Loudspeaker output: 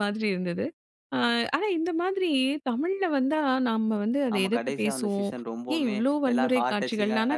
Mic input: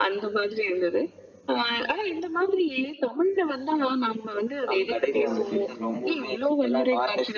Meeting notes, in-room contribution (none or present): present